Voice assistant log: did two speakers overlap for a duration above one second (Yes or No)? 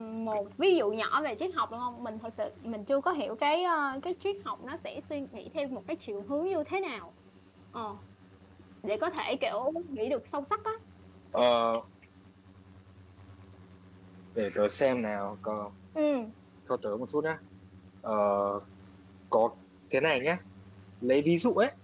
No